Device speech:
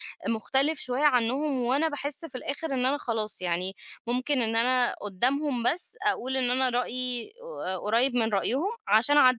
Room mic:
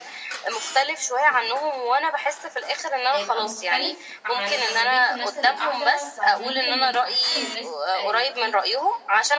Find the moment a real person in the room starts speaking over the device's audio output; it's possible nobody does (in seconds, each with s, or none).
3.1 s